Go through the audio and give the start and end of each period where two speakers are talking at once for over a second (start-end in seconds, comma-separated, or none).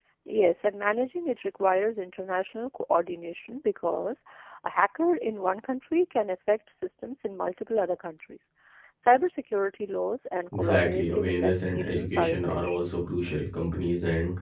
10.6-12.8